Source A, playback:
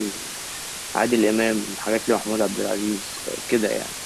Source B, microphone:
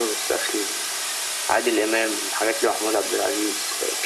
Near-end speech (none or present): none